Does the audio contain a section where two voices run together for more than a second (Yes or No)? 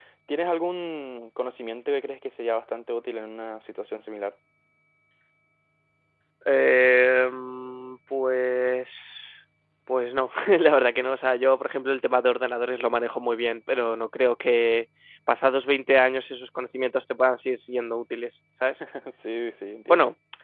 No